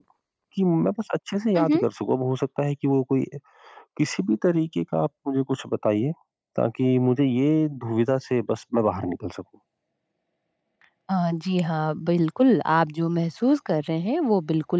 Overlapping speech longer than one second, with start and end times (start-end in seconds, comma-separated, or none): none